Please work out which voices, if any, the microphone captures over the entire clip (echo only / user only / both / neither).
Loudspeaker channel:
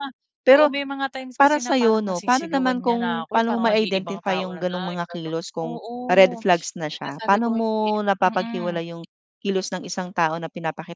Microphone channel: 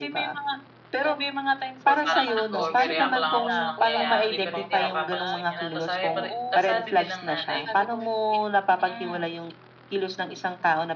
both